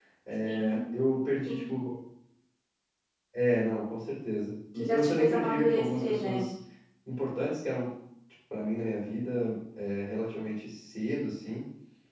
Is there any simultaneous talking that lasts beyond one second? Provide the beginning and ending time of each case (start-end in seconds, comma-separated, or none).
4.8-6.4